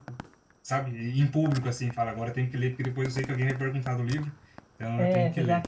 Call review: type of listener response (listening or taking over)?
taking over